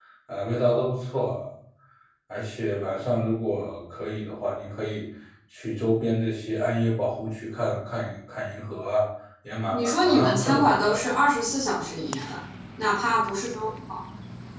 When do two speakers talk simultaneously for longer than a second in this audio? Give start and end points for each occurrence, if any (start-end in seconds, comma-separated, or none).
9.7-11.0